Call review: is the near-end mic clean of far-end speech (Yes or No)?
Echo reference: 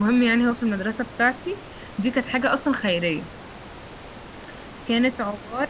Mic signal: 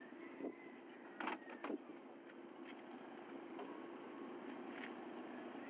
Yes